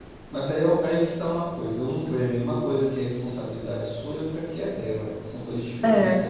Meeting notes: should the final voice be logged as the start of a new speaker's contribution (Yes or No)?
No